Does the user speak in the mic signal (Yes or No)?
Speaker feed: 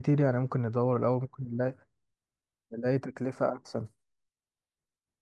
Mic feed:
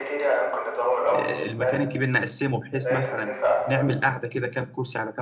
Yes